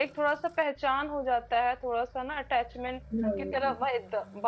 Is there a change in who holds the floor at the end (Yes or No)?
No